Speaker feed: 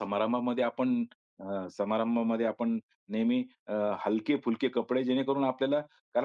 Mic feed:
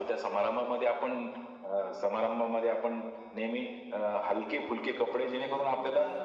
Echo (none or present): present